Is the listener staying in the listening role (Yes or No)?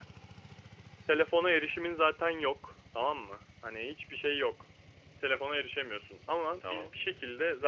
Yes